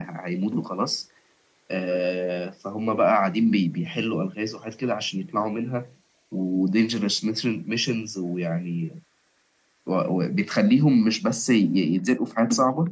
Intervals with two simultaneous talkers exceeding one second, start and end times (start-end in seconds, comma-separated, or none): none